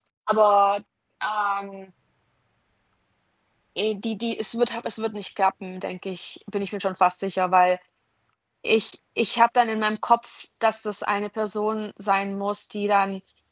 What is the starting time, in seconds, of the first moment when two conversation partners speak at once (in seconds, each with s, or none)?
none